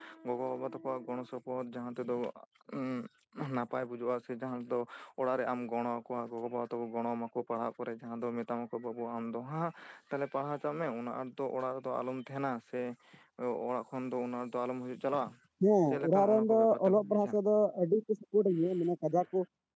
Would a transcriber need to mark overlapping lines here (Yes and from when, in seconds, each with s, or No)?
Yes, from 16.1 s